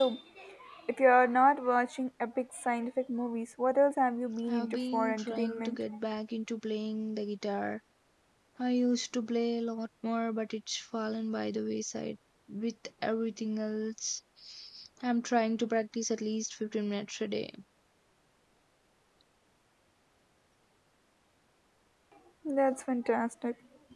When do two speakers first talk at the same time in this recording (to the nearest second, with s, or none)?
4 s